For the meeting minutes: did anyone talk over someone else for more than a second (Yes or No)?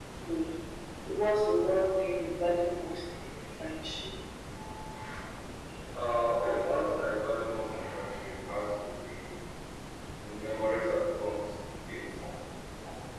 No